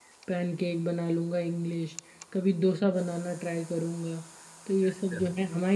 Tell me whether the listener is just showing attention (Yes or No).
Yes